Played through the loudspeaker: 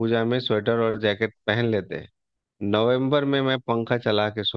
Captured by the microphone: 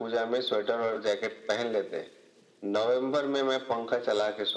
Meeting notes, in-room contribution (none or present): none